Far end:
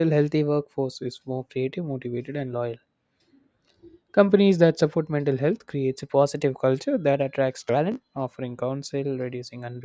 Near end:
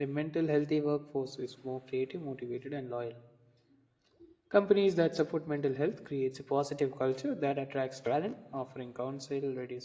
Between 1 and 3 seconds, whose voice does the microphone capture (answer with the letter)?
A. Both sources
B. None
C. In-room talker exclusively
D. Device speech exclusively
D